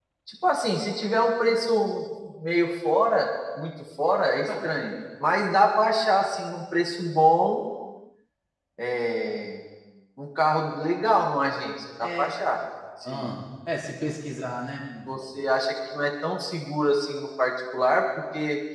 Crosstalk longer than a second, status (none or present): none